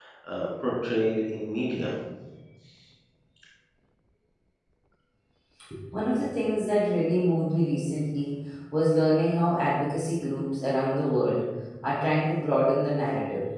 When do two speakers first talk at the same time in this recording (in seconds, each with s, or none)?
none